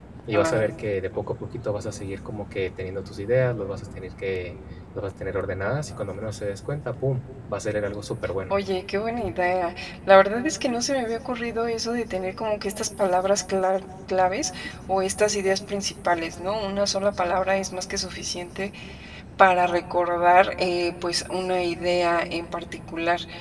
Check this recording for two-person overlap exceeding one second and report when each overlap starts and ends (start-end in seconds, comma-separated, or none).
none